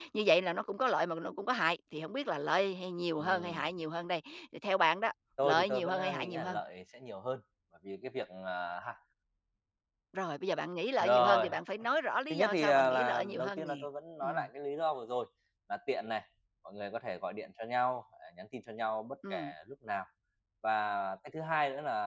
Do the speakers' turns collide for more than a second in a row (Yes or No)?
Yes